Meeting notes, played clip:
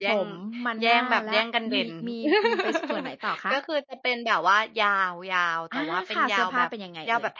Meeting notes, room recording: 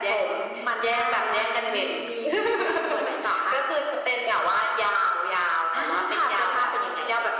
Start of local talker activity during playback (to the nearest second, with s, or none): none